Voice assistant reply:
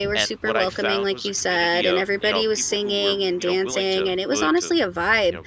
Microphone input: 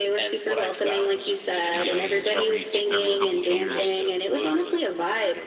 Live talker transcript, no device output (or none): every every two, every couple of years